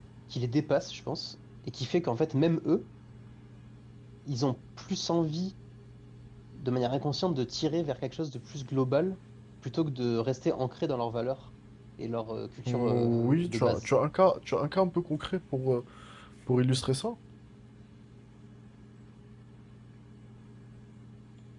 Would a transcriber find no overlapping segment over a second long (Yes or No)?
No